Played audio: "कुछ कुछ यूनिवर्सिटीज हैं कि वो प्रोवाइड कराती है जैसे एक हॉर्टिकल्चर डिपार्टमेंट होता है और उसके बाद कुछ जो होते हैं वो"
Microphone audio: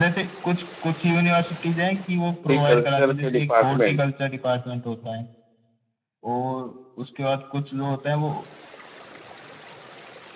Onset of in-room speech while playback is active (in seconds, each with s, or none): 2.3 s